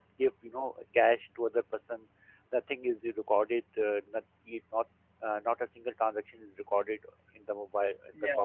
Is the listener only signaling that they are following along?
No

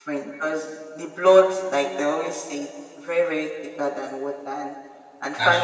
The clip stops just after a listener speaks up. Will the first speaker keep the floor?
Yes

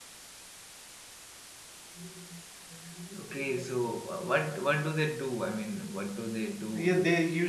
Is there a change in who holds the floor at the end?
Yes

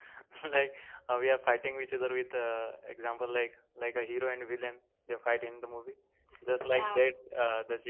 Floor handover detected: No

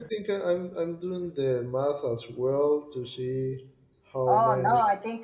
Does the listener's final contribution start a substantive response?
Yes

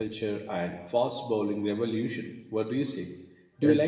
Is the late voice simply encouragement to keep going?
Yes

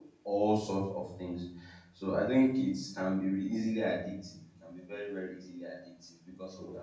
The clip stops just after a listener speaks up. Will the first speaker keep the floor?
Yes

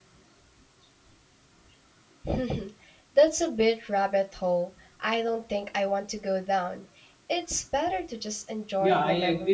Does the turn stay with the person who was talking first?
No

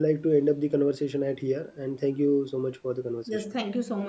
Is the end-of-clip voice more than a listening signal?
Yes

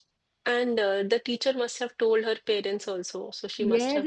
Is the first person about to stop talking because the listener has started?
Yes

